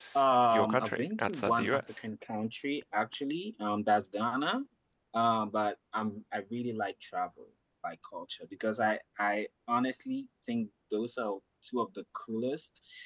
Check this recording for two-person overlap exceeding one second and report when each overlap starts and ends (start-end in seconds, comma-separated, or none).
0.5-1.8